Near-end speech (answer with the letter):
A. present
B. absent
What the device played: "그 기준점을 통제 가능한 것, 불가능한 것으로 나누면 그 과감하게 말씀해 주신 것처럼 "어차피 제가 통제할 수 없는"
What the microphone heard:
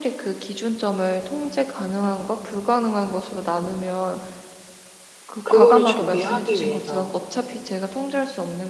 A